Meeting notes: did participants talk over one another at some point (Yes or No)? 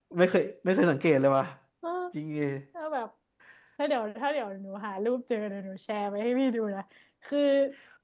No